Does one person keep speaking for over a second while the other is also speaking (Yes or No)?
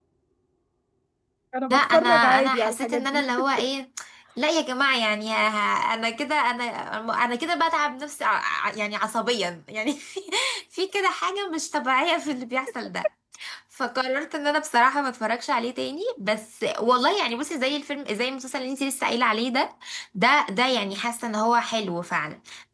Yes